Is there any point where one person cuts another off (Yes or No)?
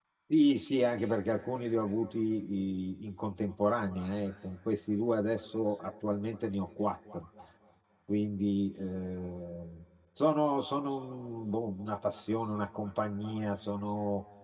No